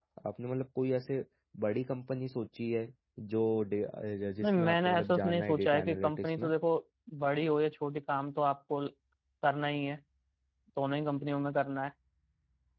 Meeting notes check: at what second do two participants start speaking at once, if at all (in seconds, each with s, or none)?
4.4 s